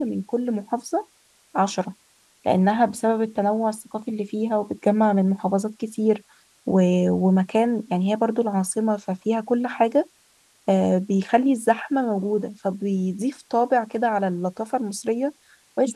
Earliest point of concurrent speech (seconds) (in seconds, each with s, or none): none